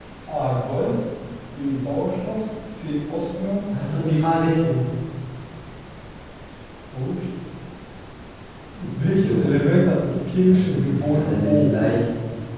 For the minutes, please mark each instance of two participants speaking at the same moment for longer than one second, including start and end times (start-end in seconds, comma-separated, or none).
10.4-11.8